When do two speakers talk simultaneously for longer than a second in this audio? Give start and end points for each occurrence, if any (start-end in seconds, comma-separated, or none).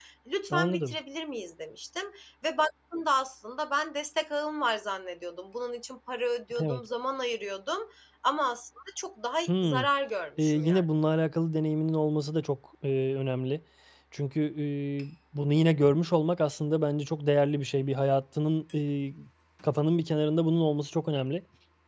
none